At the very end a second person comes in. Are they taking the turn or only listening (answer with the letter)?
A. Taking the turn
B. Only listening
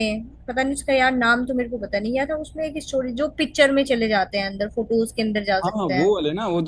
A